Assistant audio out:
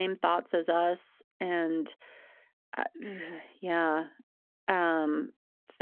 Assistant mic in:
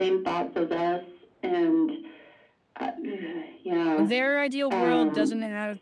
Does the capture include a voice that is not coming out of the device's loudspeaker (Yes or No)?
Yes